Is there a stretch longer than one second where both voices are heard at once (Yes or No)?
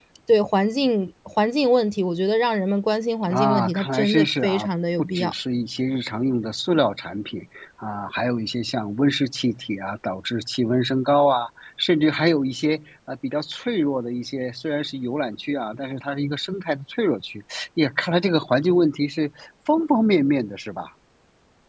Yes